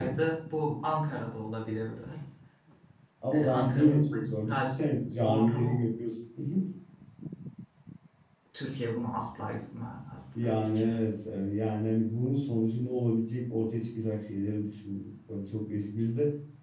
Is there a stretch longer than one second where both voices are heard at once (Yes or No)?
Yes